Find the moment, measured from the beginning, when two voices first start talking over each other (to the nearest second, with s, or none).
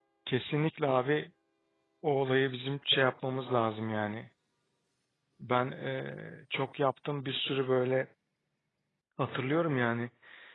none